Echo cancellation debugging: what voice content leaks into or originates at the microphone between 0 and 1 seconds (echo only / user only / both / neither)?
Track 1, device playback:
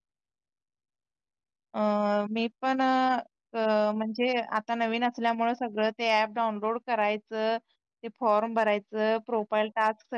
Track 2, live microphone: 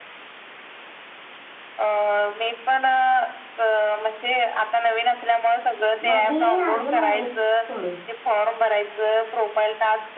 neither